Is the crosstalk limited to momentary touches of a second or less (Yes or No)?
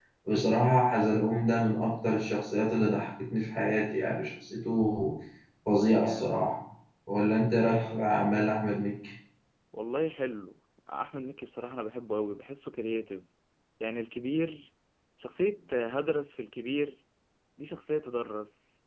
Yes